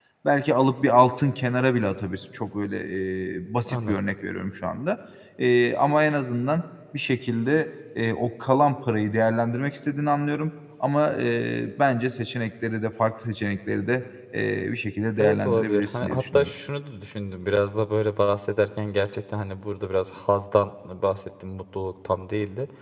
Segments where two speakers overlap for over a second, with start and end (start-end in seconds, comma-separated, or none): 15.2-16.5